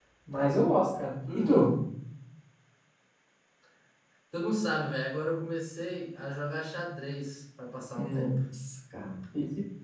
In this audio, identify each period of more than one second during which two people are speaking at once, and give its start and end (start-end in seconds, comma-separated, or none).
none